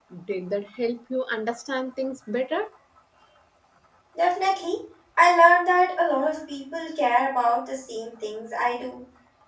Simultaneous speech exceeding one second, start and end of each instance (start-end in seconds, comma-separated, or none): none